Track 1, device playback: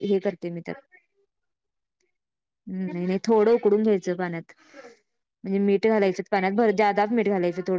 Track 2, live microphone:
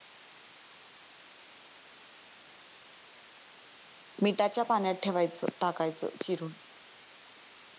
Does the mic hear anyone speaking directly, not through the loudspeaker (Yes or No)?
Yes